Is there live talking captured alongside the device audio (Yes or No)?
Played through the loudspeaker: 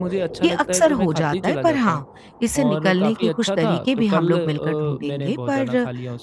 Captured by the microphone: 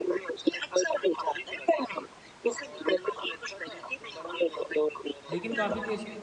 Yes